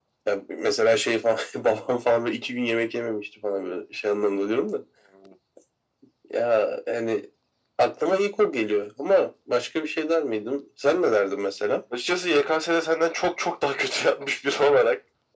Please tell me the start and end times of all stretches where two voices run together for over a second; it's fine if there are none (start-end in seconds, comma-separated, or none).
none